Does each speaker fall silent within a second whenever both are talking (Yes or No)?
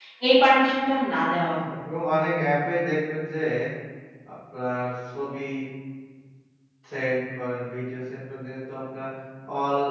Yes